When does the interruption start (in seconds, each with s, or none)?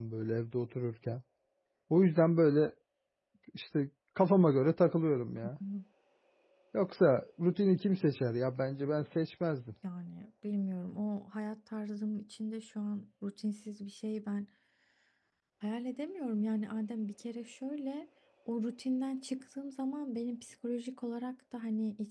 none